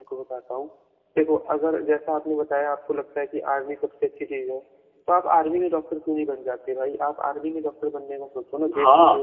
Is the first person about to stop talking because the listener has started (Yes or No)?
Yes